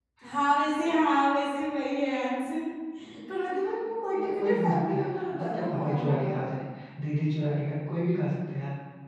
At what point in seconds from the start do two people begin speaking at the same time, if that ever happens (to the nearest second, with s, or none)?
3 s